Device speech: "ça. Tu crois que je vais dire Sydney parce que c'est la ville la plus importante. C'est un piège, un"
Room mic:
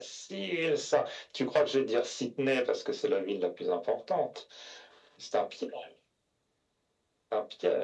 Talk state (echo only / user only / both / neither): echo only